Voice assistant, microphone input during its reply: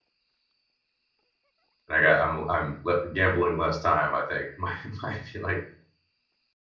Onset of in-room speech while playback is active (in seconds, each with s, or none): 1.9 s